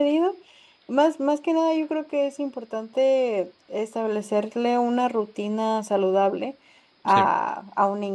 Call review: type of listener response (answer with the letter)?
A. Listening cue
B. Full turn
A